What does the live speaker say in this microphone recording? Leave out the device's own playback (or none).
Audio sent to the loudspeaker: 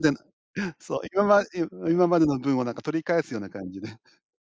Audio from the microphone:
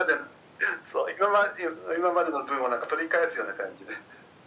none